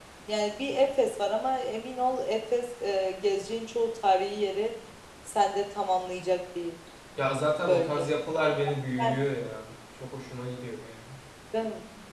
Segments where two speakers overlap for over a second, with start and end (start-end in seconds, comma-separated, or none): none